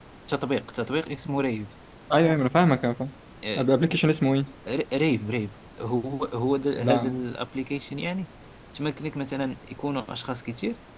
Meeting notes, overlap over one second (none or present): none